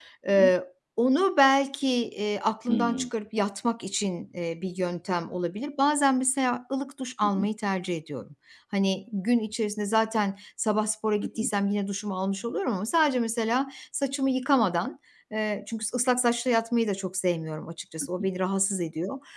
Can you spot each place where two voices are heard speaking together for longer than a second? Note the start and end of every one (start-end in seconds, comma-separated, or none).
none